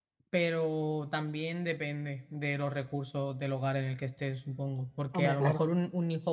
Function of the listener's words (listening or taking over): listening